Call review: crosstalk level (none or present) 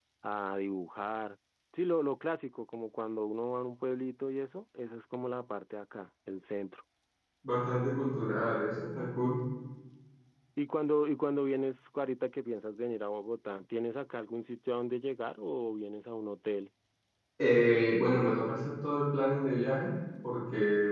none